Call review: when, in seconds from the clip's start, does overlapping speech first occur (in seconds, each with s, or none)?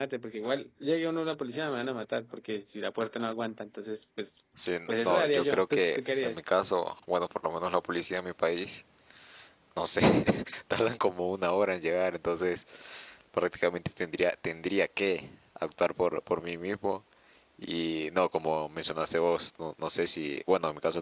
4.9 s